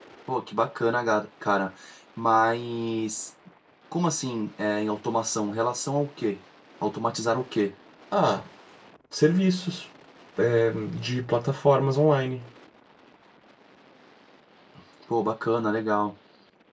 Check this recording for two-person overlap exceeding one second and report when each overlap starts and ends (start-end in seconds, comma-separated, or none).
none